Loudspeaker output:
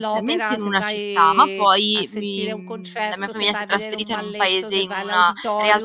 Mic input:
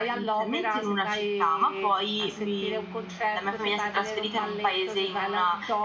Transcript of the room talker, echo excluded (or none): none